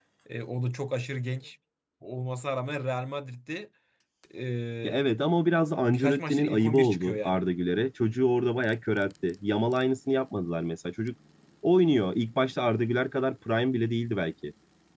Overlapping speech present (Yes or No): Yes